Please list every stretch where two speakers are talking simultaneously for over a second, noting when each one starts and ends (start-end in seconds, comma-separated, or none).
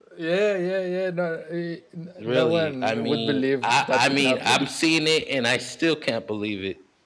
2.2-4.6